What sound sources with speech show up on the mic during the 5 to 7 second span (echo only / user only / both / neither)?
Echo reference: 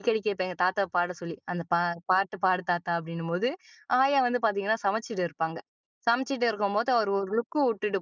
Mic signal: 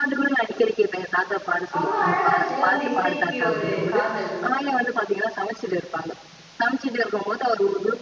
echo only